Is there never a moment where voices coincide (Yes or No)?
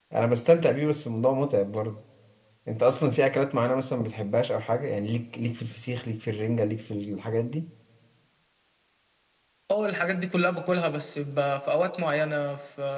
Yes